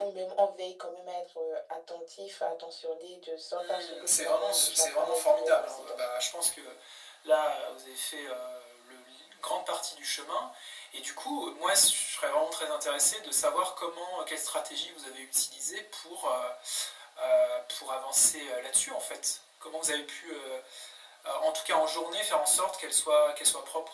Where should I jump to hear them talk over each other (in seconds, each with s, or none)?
3.6 s